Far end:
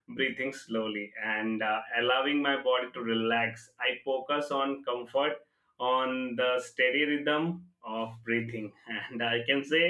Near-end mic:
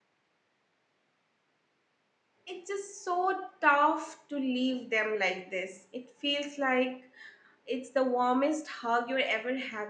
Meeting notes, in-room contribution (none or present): present